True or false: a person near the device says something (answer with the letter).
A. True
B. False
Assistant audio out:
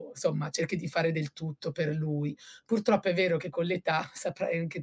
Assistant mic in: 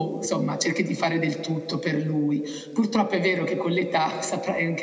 B